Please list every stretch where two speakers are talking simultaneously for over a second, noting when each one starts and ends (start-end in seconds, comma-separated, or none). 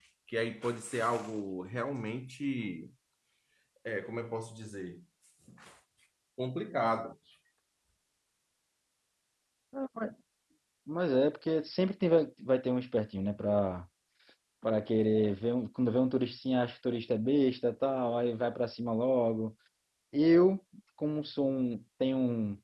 none